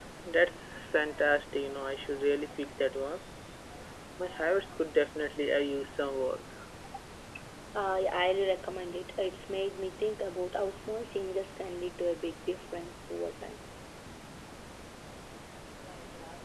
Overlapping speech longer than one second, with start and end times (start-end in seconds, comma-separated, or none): none